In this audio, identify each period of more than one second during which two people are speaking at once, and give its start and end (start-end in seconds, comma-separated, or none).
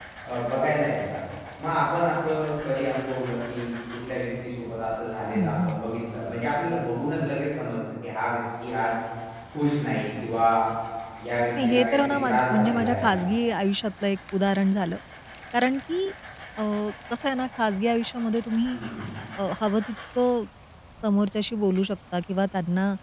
11.6-13.2